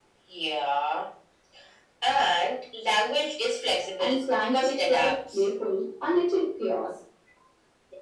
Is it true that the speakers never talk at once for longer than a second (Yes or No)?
No